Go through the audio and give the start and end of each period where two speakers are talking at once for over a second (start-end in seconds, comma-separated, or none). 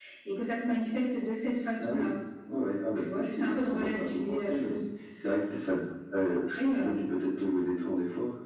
3.0-4.8